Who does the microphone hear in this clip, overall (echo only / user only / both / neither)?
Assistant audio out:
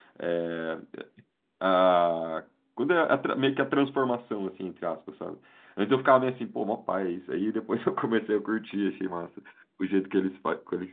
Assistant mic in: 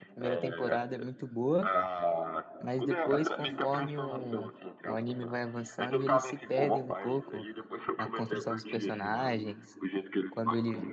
both